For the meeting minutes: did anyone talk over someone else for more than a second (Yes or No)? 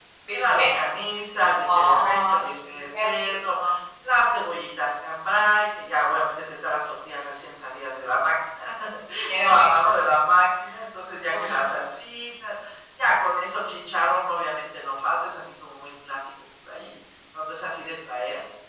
Yes